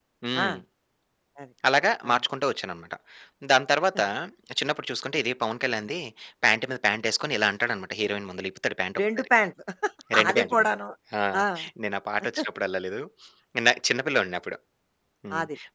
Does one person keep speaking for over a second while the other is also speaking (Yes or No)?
No